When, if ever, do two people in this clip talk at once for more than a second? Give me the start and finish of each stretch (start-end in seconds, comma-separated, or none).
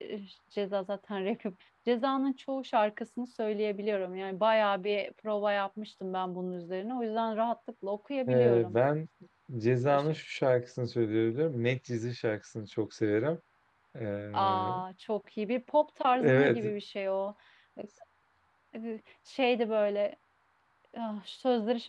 none